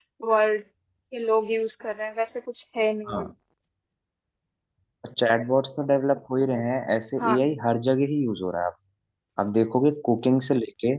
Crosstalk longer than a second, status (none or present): none